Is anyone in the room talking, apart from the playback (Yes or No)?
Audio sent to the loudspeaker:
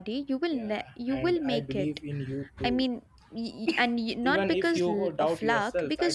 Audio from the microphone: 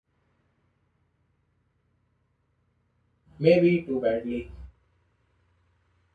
Yes